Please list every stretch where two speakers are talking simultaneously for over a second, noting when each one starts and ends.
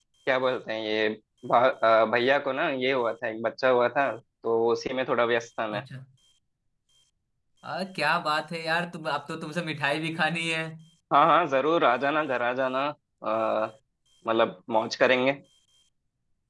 none

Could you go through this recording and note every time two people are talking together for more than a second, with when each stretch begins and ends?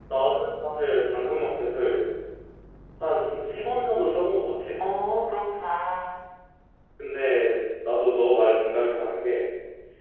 none

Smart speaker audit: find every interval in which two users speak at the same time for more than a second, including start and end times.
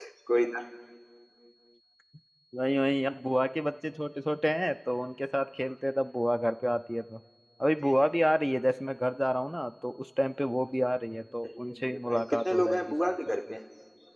11.4-13.4

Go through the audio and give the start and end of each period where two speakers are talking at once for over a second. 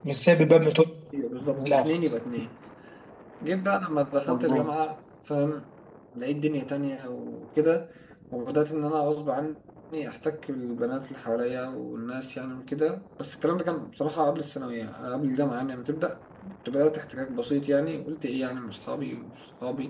none

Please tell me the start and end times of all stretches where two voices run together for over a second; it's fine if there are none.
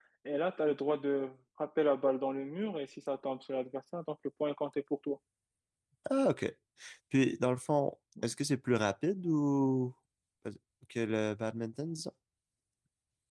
none

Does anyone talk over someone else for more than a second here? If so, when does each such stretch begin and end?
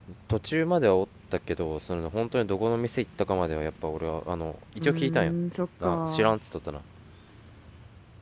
none

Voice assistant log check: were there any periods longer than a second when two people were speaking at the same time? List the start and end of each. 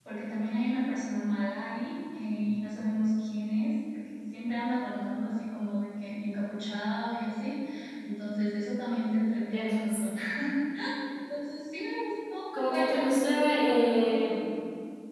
12.5-14.1

